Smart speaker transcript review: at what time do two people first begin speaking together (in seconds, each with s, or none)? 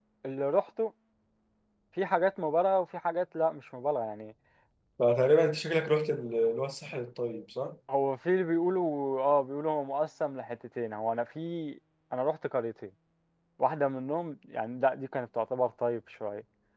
none